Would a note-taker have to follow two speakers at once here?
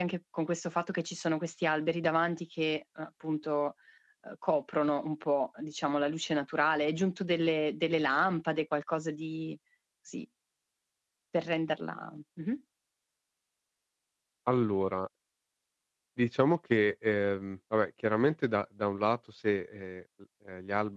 No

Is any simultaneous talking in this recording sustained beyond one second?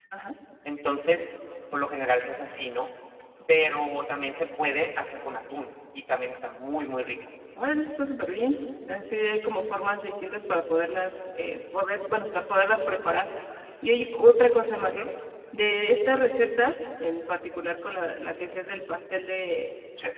No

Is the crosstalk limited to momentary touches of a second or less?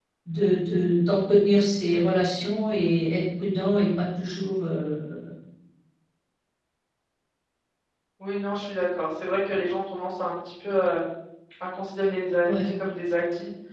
Yes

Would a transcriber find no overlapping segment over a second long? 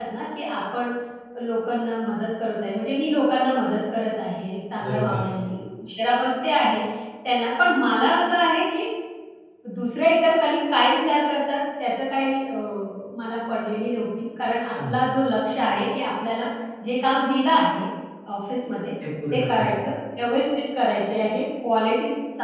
Yes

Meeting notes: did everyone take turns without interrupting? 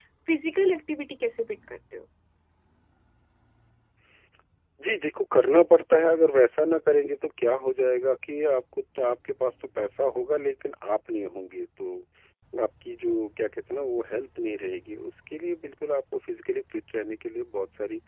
Yes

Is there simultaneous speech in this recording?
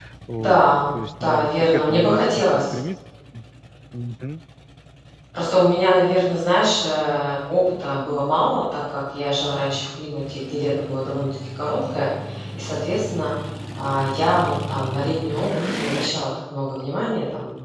Yes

